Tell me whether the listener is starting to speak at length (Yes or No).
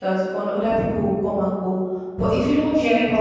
No